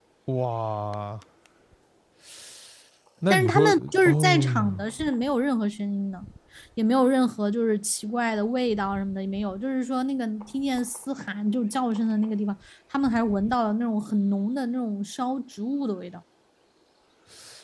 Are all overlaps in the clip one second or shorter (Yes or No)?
No